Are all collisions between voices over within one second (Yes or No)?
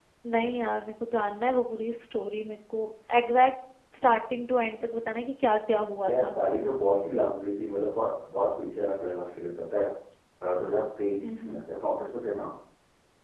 Yes